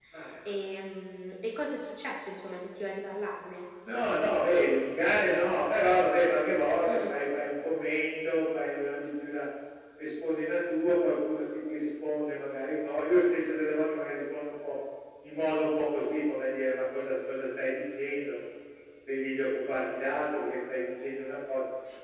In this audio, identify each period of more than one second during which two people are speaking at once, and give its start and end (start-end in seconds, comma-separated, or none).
none